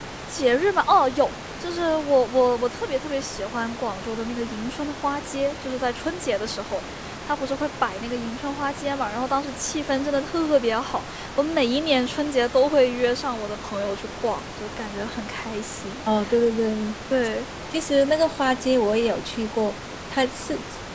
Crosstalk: none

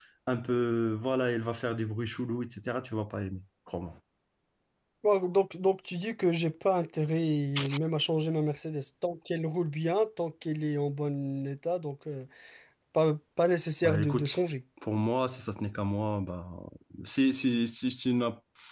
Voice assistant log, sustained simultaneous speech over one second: none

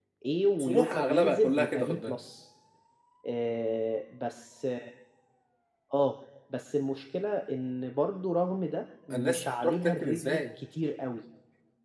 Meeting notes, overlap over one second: present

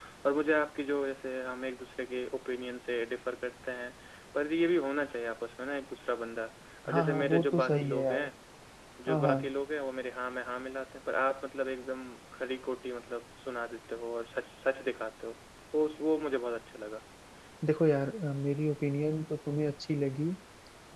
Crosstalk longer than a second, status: present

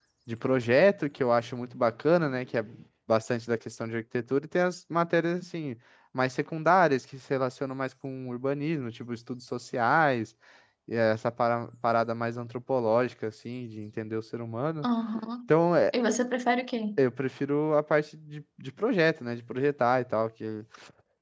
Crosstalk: none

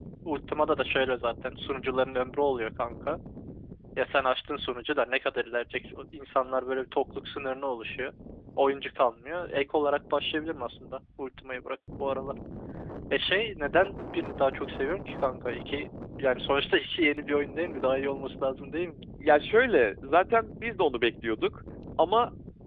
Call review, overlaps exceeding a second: none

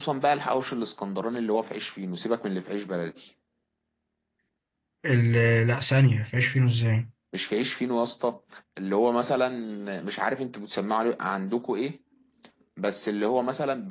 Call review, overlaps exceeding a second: none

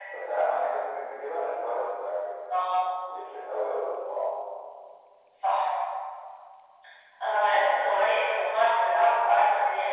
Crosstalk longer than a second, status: none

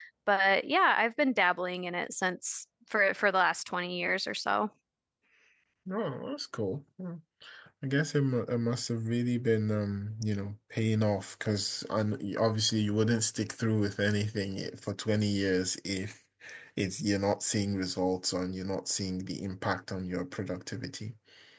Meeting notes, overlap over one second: none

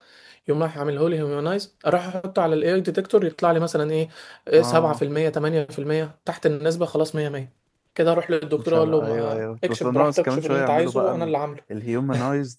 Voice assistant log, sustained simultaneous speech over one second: present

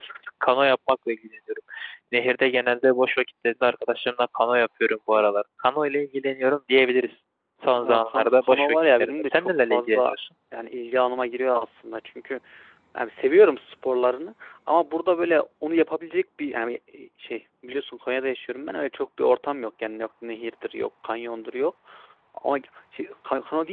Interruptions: present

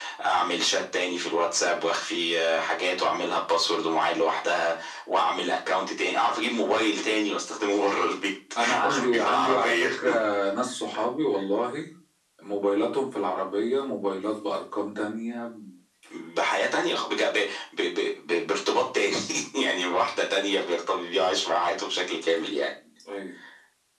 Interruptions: present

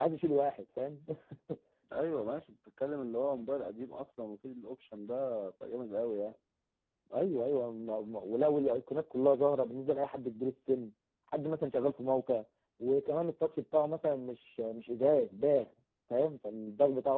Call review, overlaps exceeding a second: none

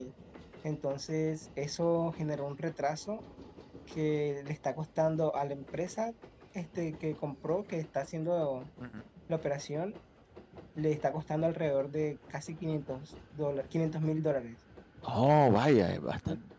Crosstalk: none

